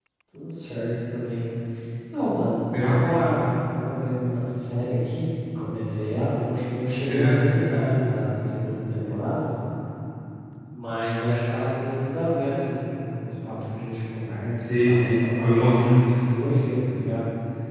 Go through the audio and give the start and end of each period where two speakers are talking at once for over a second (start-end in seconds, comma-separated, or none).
14.6-16.0